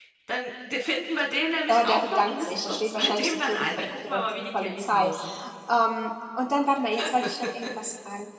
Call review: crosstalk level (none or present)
present